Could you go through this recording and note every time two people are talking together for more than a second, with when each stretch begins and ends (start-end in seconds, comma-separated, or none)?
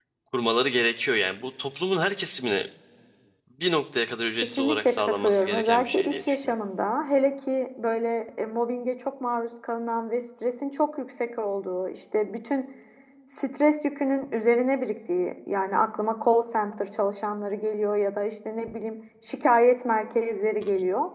4.6-6.5